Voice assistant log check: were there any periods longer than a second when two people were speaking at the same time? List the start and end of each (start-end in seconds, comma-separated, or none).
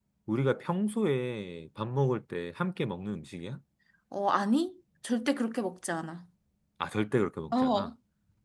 none